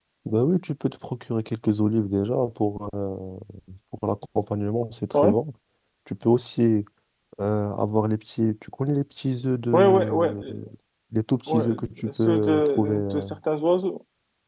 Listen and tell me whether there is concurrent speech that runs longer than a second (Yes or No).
Yes